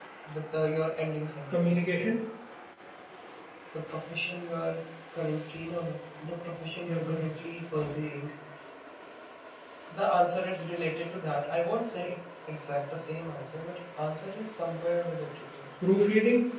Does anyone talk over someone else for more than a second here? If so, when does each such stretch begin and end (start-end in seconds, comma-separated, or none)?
none